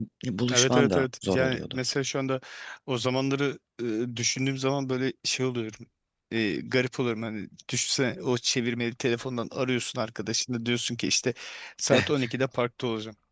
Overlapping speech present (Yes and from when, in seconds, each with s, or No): Yes, from 0.5 s